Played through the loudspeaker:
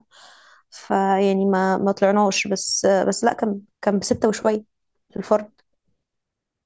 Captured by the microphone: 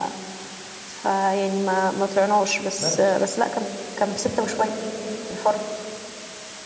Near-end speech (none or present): present